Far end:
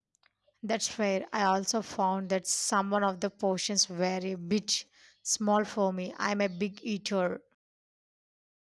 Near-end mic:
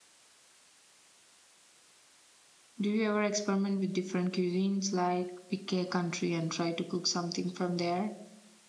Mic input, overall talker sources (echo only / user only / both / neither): user only